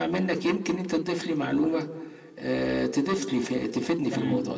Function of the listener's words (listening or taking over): taking over